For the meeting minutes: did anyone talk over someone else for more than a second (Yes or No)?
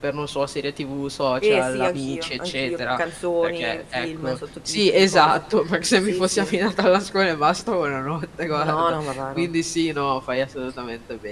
Yes